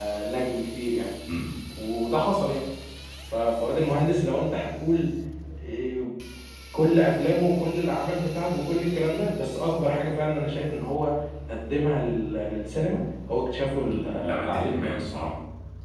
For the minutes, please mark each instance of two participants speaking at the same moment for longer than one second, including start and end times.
13.8-15.3

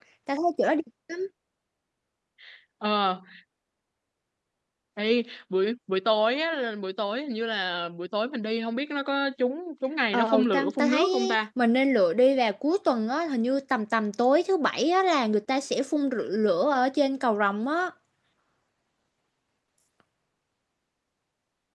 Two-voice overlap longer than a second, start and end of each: 10.1-11.4

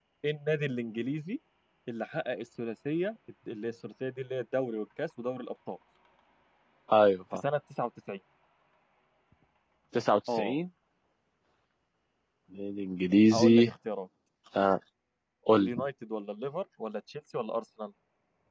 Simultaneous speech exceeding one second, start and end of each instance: none

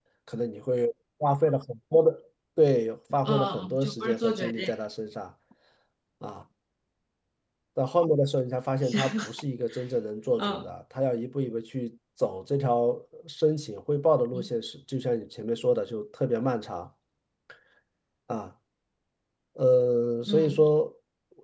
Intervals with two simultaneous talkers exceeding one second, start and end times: 3.2-4.7

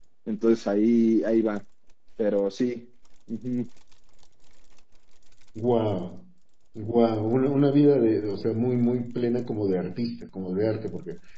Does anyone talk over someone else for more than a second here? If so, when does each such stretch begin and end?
none

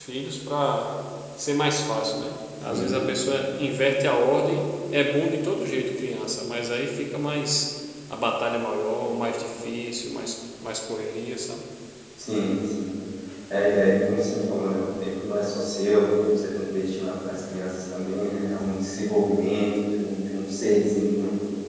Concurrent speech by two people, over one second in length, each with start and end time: none

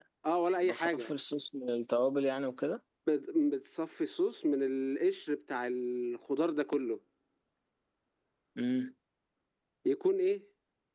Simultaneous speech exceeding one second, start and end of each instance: none

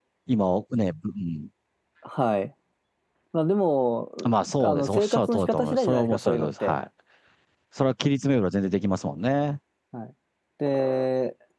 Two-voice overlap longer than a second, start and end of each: 4.6-6.7

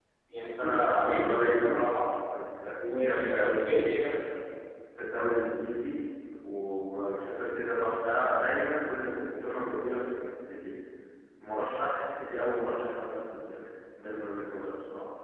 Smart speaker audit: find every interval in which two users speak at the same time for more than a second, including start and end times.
0.6-2.0, 2.9-4.1

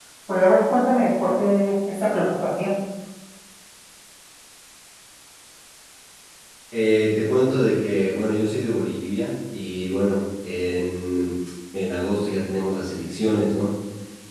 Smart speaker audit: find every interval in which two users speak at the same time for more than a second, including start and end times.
none

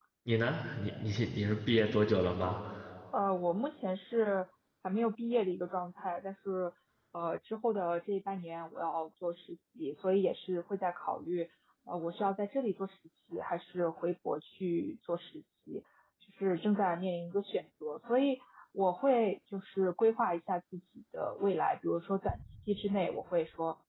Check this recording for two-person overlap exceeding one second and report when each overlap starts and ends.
none

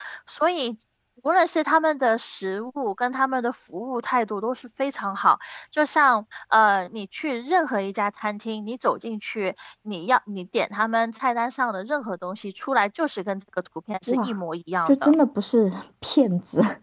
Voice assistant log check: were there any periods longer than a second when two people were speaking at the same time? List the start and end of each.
none

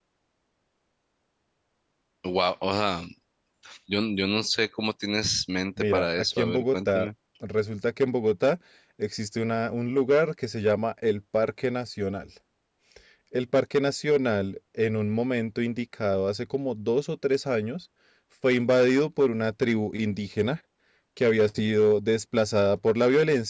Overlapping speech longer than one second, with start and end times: 5.8-7.1

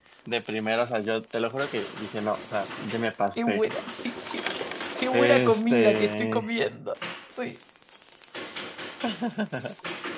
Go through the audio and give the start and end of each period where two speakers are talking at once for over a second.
5.1-6.5

